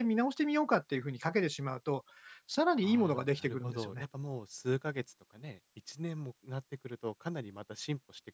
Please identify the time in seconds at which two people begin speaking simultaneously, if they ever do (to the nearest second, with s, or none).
3 s